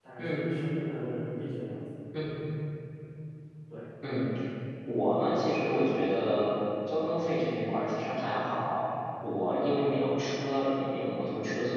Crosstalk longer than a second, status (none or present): none